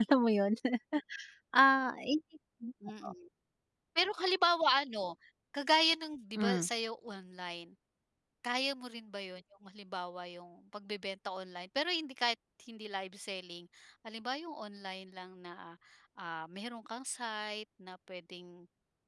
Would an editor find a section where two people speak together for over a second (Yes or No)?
No